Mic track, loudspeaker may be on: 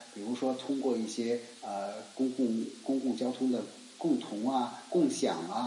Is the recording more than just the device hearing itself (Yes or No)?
No